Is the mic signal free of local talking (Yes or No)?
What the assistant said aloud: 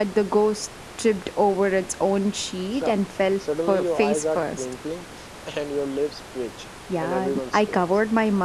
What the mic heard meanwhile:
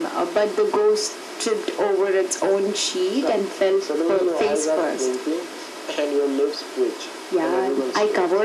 Yes